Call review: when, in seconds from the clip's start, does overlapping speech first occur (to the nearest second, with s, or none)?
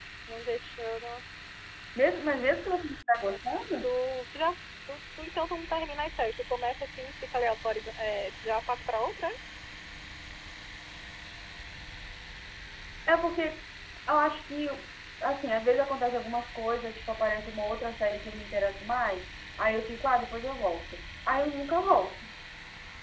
none